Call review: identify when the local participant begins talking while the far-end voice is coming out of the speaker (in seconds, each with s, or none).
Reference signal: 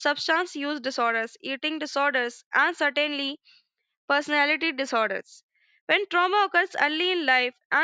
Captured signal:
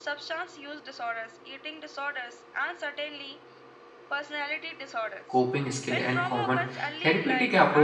5.3 s